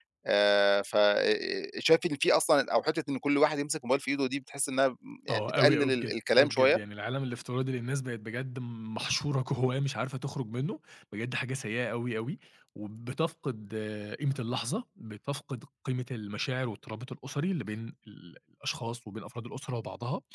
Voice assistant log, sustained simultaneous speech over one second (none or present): present